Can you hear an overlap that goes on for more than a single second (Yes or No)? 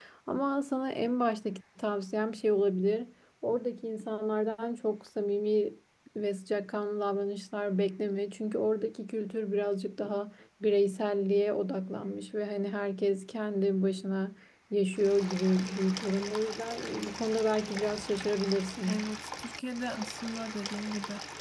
No